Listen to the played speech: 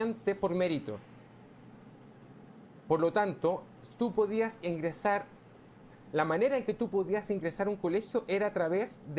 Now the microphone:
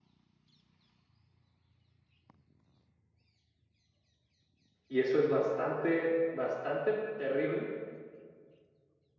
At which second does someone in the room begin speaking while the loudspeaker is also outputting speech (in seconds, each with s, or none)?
4.9 s